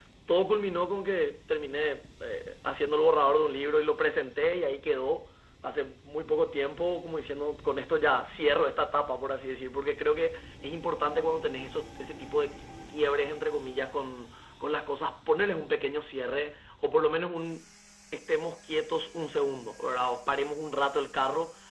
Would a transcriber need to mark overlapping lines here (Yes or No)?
No